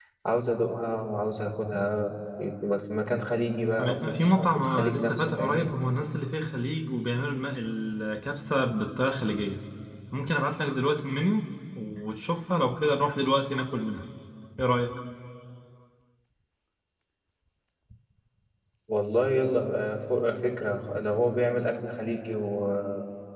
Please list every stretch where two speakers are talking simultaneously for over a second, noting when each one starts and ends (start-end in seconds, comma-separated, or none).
3.8-5.7